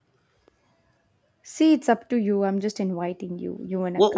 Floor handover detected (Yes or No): Yes